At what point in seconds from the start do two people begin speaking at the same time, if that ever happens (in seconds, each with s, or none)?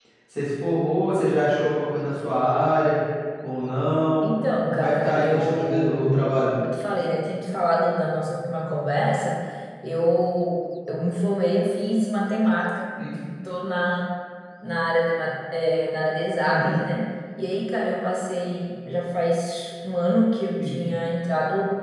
4.7 s